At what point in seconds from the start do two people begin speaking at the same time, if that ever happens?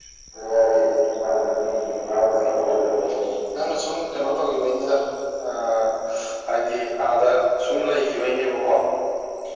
none

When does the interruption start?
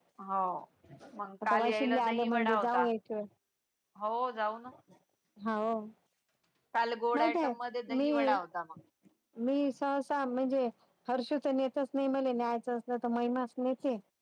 1.4 s

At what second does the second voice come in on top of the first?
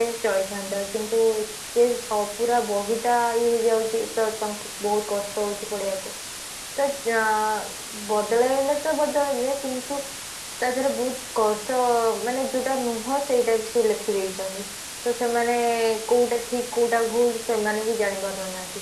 none

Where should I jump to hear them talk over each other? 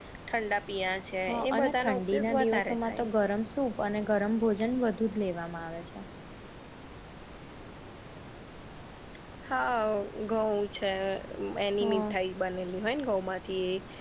1.3 s

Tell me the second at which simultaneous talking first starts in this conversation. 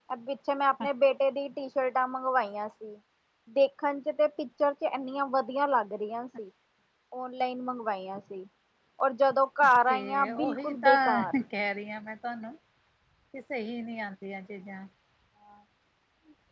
9.9 s

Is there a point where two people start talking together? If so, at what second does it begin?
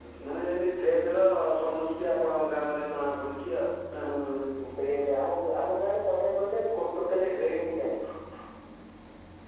none

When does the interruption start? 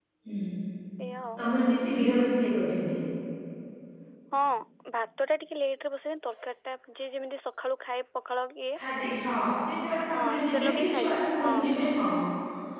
10.1 s

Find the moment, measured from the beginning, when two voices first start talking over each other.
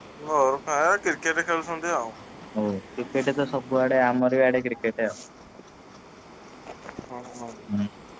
none

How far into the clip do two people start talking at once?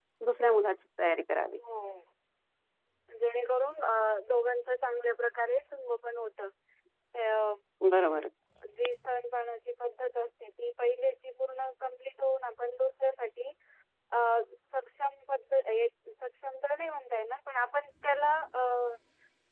none

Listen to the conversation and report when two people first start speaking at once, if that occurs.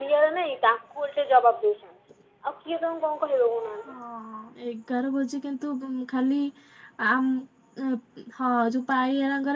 none

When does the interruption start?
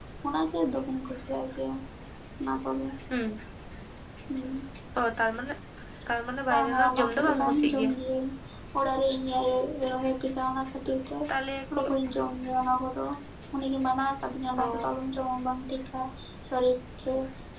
6.5 s

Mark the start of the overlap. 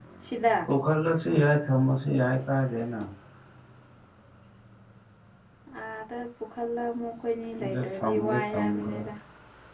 7.6 s

